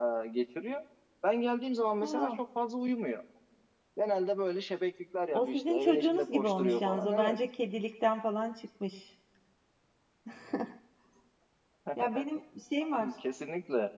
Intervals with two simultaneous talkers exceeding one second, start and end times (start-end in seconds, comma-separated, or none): 5.3-7.4